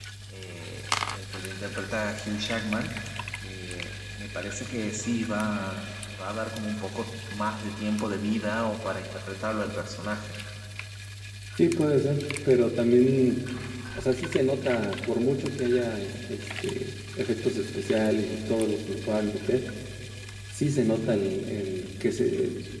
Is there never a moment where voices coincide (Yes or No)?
Yes